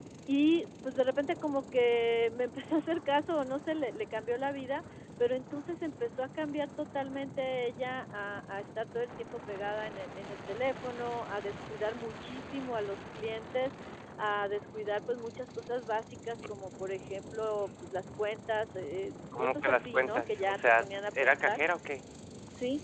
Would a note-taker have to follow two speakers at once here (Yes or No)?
Yes